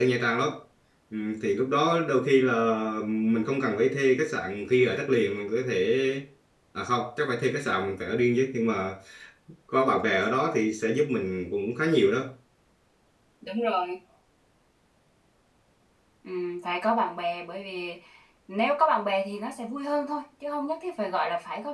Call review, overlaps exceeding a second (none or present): none